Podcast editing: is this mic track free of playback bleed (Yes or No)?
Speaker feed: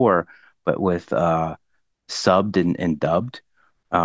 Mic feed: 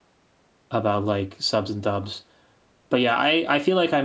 Yes